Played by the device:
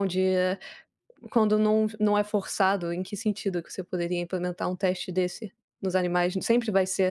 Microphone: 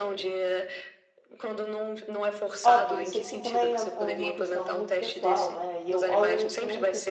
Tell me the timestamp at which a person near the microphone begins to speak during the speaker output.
2.6 s

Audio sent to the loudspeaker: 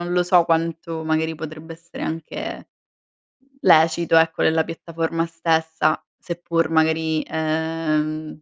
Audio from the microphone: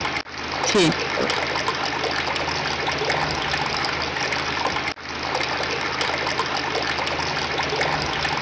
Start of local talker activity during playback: 0.7 s

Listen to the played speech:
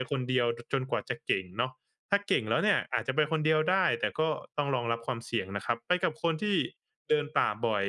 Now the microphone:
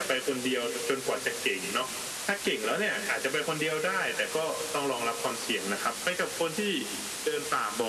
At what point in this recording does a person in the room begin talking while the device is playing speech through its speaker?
none

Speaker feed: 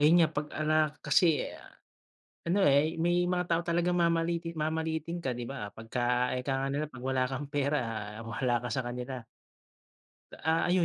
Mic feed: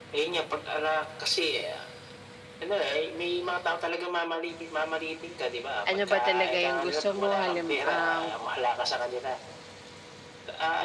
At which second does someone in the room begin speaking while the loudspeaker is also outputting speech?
5.8 s

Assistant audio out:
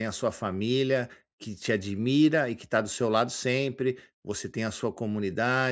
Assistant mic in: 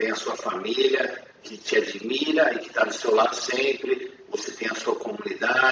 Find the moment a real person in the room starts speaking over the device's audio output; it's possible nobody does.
none

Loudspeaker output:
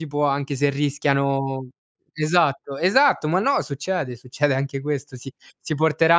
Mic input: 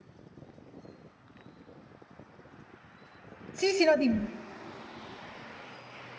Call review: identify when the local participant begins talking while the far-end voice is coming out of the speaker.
3.5 s

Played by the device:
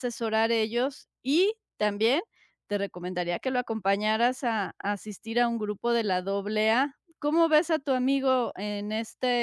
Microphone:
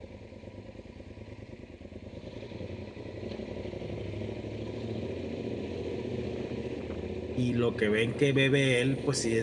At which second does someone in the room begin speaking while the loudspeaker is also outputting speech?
7.4 s

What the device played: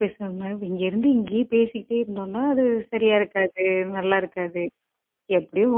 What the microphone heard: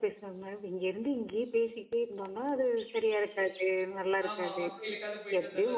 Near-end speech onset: 4.3 s

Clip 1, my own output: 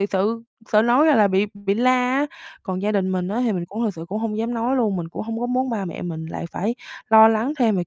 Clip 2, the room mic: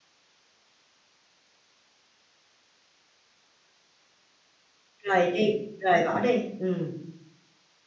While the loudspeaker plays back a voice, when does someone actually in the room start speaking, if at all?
5.0 s

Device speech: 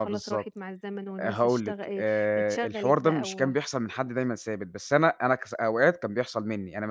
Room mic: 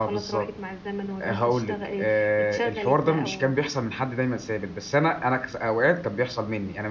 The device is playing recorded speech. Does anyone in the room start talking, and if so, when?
none

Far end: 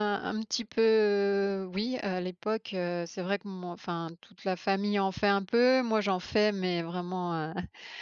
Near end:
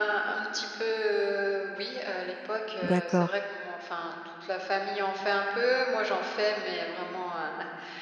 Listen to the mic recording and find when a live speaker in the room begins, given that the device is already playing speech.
2.8 s

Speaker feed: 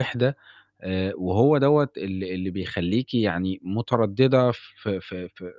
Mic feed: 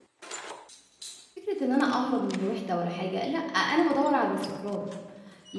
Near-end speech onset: 1.4 s

